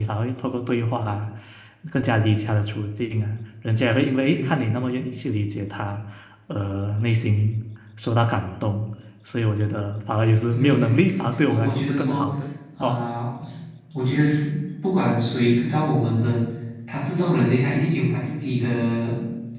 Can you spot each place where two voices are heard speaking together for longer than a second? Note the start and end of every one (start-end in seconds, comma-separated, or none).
10.5-12.2